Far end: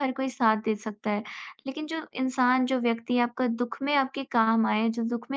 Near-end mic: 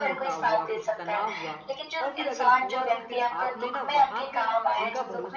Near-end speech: present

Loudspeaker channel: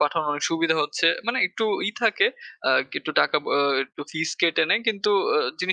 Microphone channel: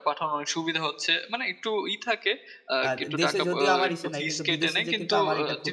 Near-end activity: present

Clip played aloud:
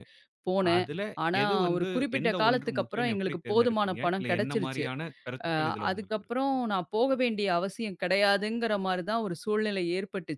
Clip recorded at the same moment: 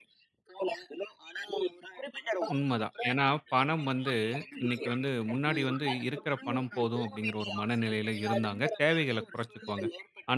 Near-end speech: present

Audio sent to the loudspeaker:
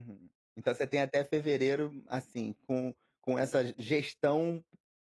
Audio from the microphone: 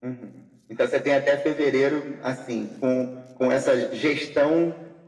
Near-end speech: none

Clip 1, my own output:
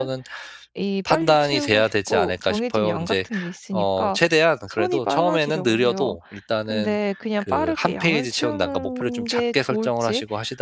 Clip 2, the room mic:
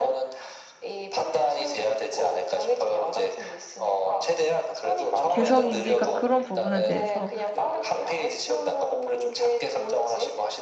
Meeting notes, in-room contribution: present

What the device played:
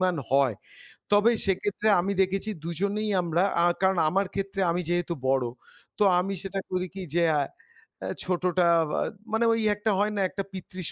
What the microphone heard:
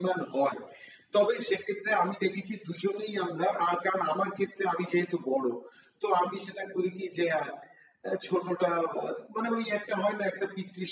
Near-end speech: none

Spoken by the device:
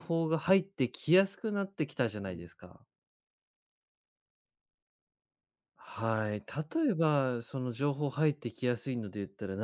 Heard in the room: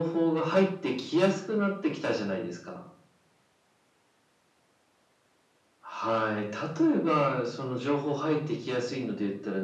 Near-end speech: none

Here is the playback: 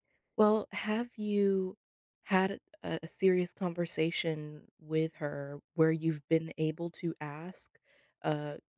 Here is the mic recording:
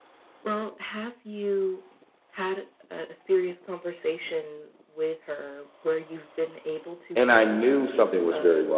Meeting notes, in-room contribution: present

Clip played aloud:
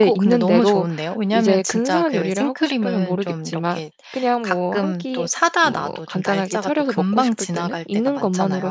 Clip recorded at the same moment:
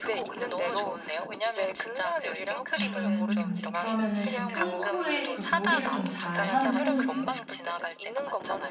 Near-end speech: present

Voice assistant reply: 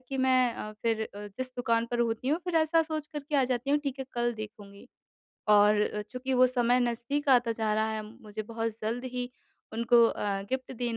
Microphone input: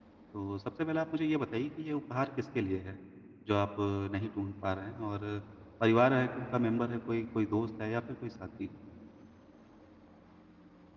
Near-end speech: present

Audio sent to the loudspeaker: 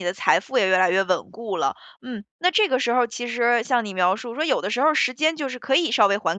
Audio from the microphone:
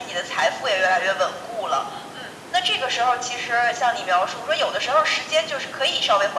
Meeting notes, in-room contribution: none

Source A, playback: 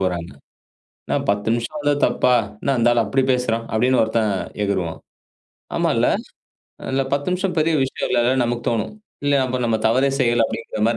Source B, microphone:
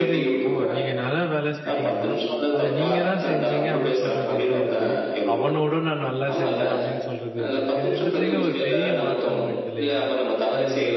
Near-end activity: present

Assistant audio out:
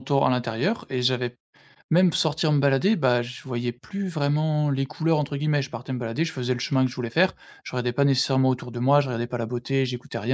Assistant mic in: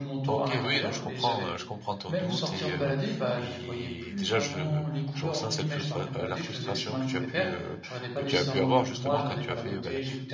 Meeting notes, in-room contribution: present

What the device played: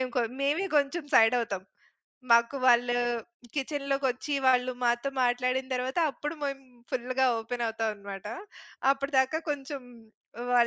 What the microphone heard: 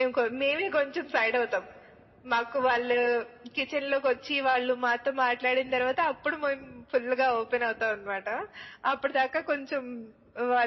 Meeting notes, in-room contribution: none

